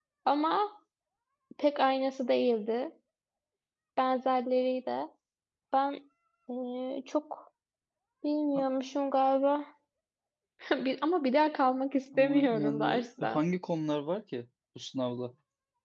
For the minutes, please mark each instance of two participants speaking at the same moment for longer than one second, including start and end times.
12.1-13.4

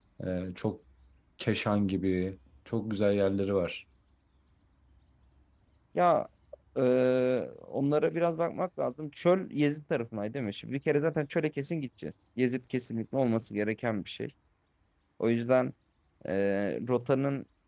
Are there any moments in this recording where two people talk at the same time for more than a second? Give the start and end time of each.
none

